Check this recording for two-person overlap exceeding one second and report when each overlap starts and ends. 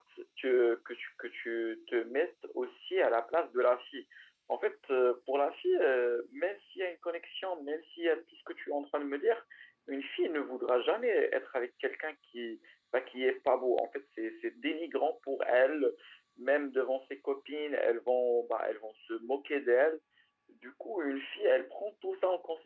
none

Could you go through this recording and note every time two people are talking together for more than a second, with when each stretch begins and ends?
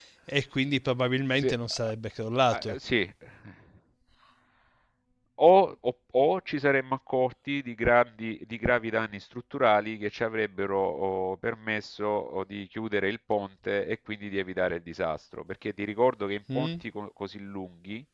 none

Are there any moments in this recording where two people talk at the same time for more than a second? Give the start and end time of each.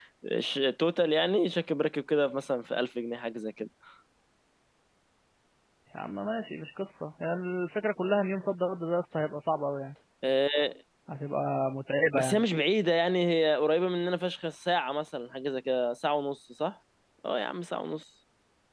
none

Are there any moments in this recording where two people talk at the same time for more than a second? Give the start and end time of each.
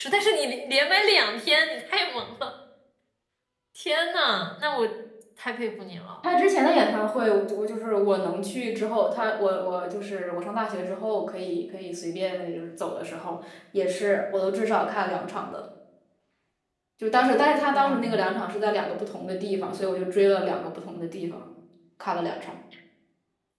none

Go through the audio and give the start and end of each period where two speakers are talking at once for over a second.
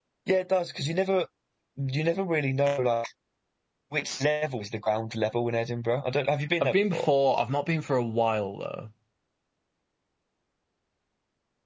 none

